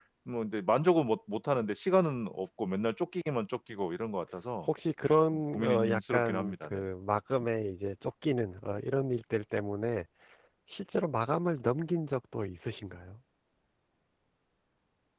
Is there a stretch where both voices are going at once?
Yes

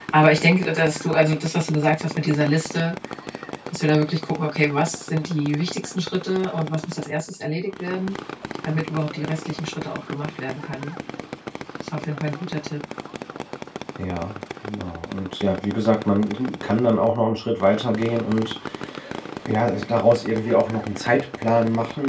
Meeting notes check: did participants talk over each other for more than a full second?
No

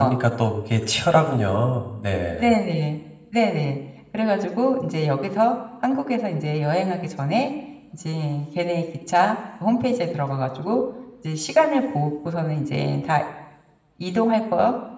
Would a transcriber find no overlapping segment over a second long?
Yes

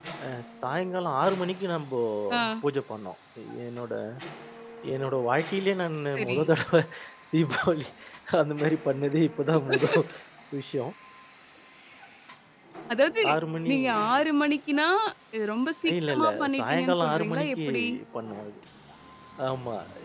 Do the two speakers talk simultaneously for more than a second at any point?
Yes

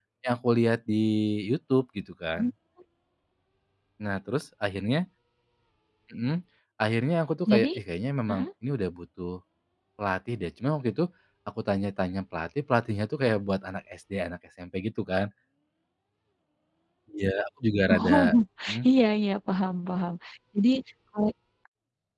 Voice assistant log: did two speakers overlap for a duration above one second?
No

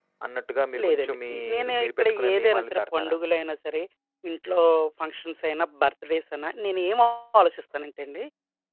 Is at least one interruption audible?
Yes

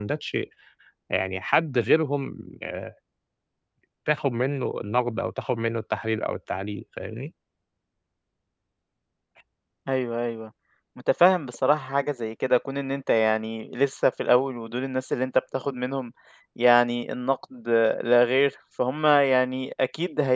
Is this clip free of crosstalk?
Yes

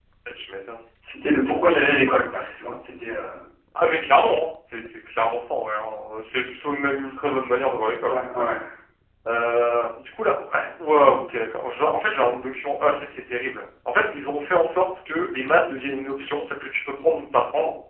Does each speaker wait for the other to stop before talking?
Yes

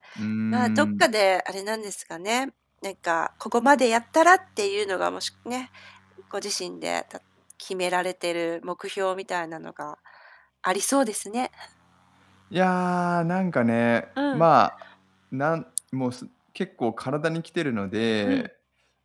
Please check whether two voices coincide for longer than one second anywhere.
No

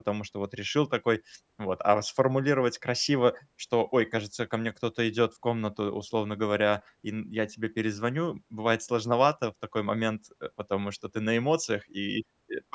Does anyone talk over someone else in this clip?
No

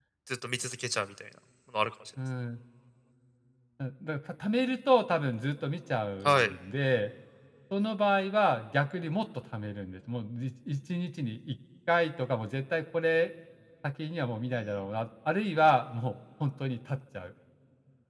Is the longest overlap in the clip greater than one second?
No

